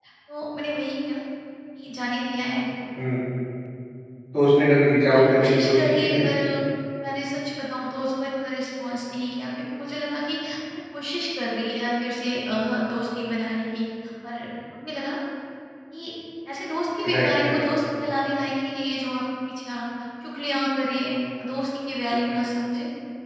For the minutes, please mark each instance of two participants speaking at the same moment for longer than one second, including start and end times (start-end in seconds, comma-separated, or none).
5.1-6.3